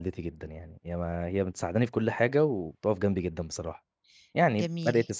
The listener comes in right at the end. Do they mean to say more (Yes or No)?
Yes